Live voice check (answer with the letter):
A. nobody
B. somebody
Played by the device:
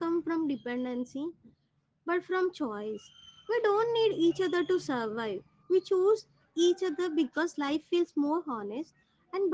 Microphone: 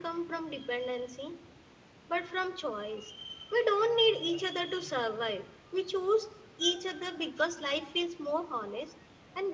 A